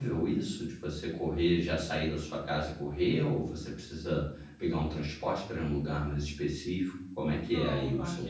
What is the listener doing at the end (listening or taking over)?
taking over